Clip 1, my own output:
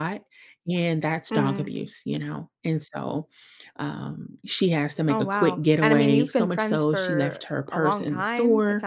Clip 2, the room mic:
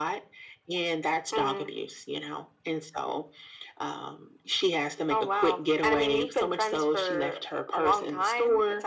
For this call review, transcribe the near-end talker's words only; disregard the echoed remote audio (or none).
none